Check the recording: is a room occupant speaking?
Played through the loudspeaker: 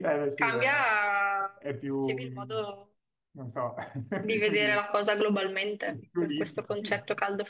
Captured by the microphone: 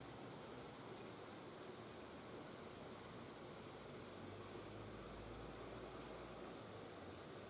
No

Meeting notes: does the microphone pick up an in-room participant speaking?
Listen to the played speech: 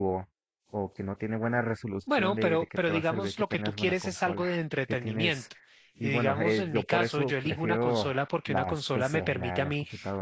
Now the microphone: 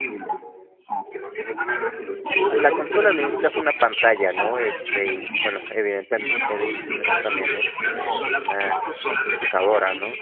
Yes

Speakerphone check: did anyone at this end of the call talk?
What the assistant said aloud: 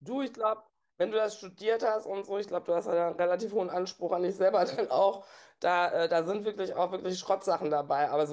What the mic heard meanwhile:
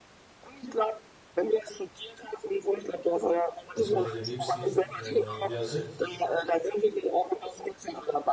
Yes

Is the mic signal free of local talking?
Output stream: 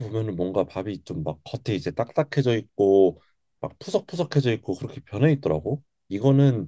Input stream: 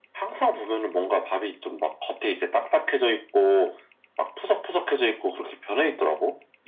Yes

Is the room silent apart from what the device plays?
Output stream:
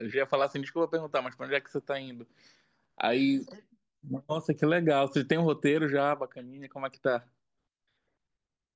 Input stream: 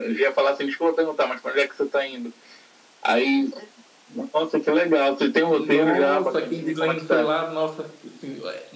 No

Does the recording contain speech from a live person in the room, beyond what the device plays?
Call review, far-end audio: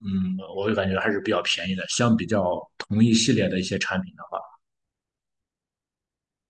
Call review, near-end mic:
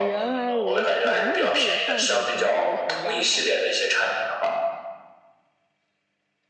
Yes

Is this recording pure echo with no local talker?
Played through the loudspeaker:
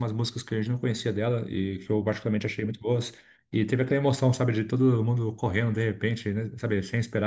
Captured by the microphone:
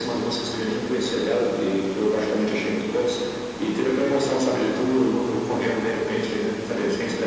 Yes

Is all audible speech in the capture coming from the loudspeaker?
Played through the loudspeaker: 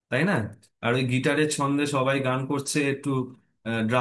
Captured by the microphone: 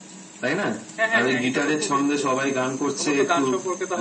No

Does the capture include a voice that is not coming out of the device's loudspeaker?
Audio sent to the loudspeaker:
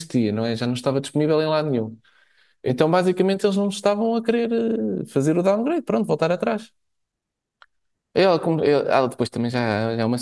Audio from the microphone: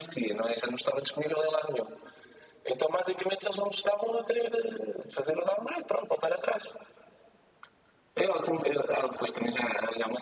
No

